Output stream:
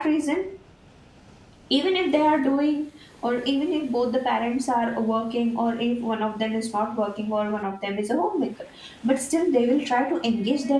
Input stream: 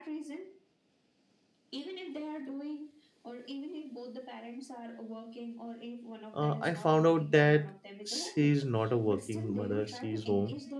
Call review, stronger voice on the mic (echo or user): user